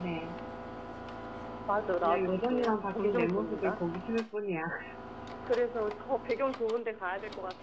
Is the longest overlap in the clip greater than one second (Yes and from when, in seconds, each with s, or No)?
Yes, from 2.0 s